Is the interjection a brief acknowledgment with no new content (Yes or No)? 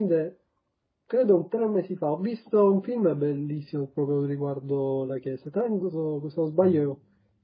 Yes